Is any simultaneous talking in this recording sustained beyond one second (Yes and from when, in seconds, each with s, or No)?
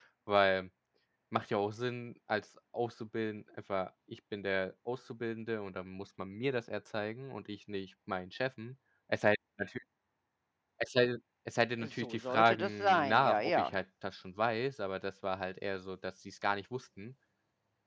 Yes, from 11.8 s